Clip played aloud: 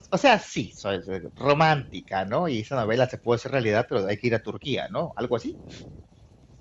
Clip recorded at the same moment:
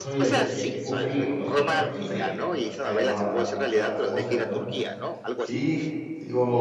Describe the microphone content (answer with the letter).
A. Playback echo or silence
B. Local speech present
B